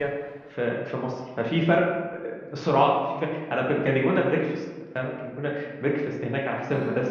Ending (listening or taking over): listening